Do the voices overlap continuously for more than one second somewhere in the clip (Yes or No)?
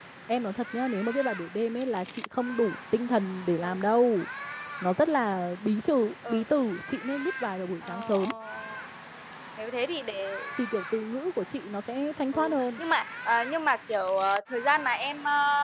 No